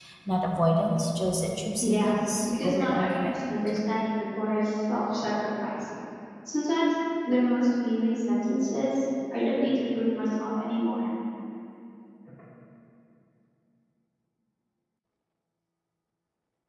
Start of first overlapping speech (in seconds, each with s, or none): 1.8 s